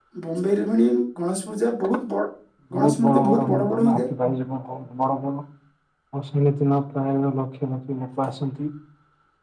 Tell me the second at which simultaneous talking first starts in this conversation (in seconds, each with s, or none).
2.8 s